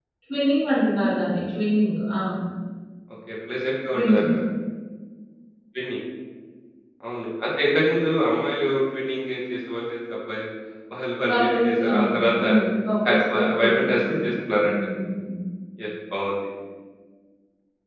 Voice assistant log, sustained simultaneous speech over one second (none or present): present